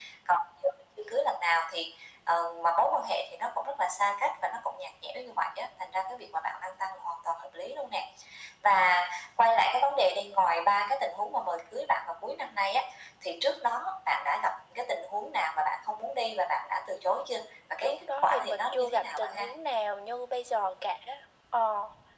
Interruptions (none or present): present